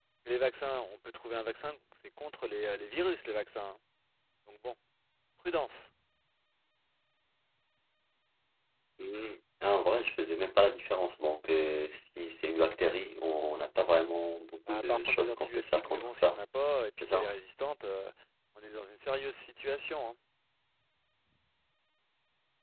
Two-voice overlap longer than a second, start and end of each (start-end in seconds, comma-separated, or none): 14.7-16.4